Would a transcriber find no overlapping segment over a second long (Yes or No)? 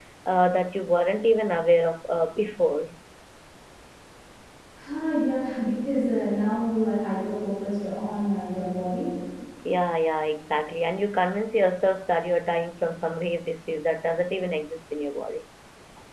Yes